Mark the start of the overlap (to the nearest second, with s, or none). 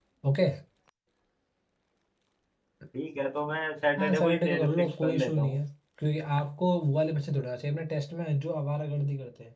4 s